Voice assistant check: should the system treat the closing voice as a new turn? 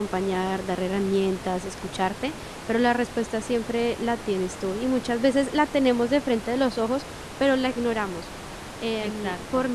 No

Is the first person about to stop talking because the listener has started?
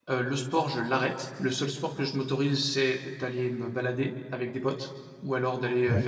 No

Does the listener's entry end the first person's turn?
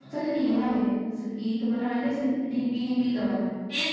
Yes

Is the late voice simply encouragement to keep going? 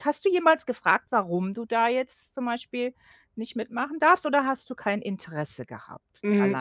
No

